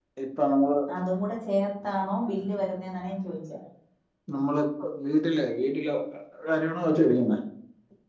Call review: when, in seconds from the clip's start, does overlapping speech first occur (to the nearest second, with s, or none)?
none